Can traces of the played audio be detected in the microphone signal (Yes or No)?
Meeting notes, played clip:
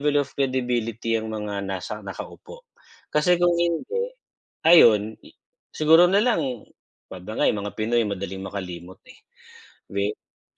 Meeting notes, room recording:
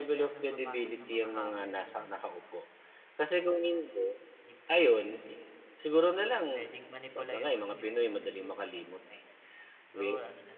Yes